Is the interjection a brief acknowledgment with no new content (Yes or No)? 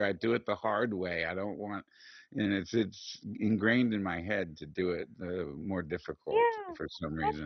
No